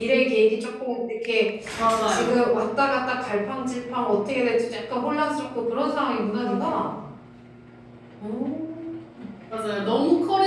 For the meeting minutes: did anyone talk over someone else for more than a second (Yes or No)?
No